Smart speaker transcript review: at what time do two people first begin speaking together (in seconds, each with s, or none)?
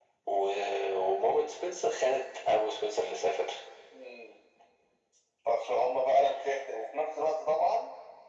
none